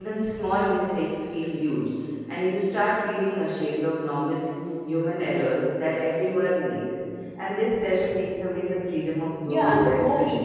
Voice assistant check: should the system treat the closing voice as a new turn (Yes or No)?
Yes